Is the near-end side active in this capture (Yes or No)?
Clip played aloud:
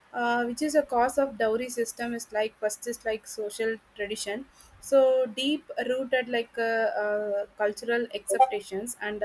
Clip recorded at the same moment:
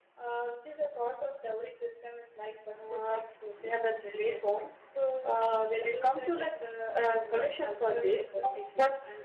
Yes